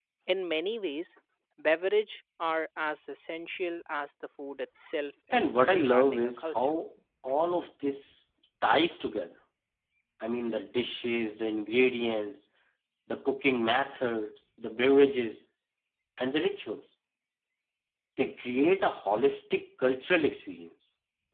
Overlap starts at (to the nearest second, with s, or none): 5 s